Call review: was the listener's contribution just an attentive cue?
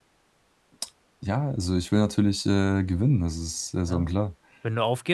No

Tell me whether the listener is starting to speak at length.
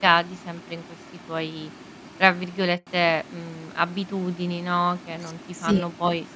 No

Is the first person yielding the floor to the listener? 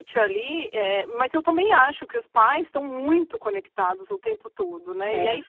No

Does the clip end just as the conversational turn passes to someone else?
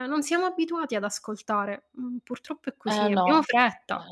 Yes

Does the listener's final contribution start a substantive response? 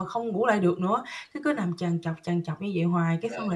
No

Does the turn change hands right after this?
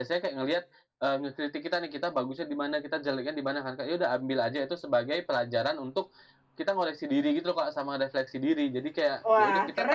Yes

